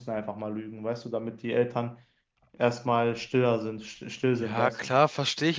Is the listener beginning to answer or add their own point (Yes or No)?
Yes